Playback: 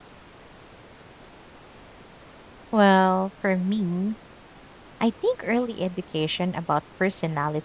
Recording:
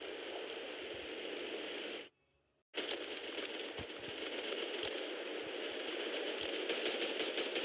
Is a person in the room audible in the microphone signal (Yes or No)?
No